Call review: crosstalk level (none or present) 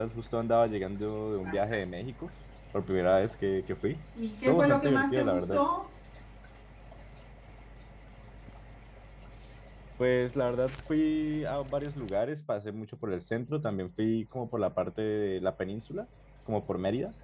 present